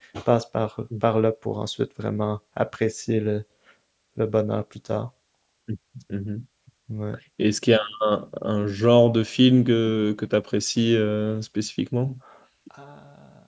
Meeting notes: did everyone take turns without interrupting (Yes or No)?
Yes